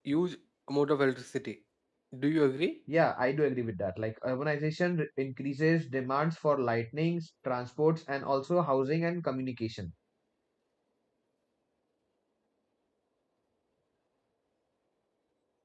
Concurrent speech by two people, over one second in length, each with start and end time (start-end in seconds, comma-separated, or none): none